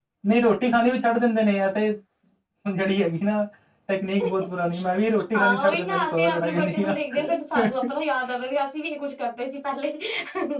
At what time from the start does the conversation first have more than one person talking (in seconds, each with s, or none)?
5.3 s